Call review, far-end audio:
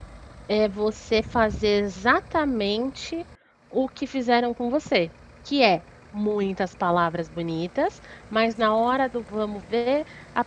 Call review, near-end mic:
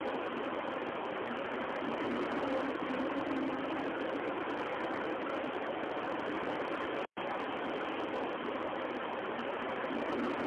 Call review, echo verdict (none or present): none